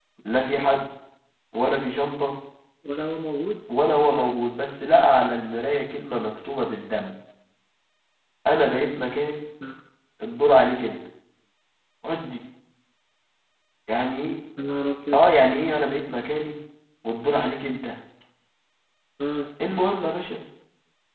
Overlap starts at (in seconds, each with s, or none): none